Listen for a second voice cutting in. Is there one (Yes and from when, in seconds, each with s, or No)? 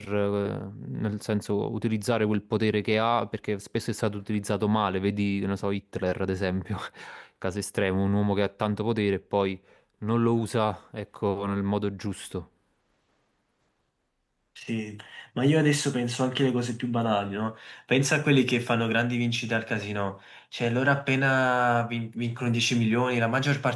No